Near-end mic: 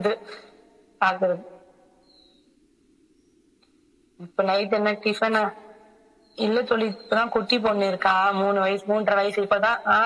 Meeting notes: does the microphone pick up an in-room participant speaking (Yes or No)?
No